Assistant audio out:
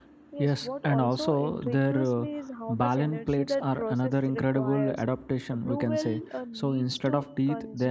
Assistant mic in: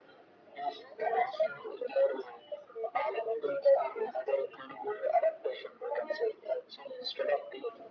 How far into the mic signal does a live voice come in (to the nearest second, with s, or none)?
none